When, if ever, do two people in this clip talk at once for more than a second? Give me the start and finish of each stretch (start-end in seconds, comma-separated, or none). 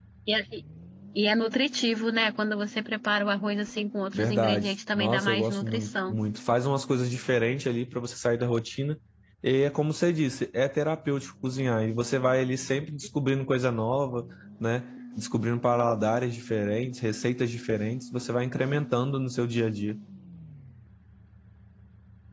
4.1-6.2